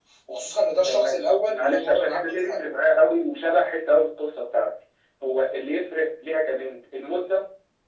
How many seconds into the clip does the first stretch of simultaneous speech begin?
1 s

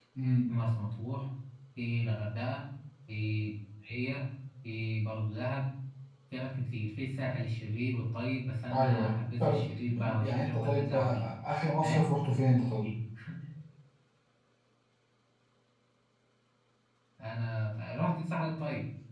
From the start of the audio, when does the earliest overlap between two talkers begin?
9 s

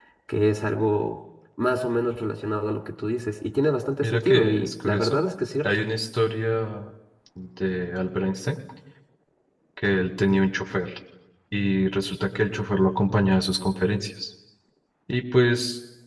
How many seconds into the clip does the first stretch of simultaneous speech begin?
4 s

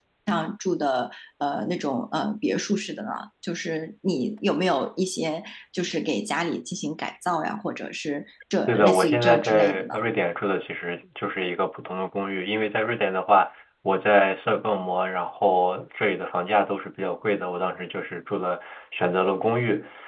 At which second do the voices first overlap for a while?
9 s

